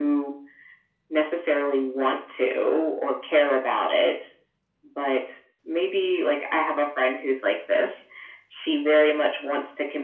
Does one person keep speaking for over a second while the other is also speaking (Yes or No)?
No